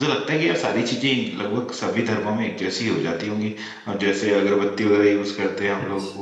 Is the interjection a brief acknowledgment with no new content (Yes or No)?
No